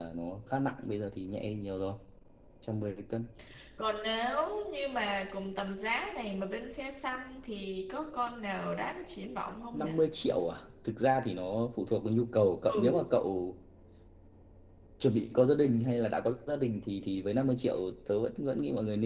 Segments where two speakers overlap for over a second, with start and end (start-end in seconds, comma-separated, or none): none